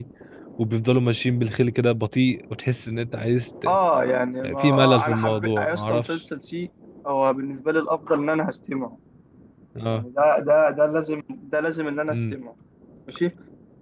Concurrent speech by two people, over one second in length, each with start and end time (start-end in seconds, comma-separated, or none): 4.6-6.2